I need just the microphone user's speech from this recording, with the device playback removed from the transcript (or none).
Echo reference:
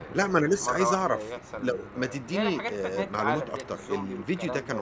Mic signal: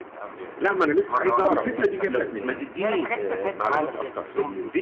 طب الفكرة دي جات لك منين؟